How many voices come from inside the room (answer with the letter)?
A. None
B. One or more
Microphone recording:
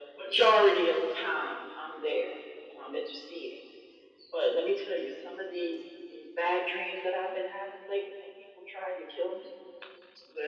A